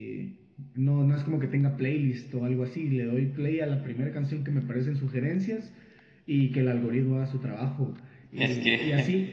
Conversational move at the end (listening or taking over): listening